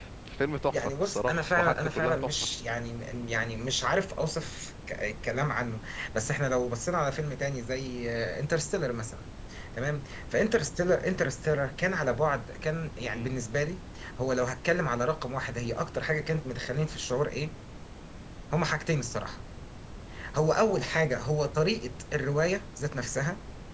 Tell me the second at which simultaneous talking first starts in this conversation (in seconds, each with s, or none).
0.7 s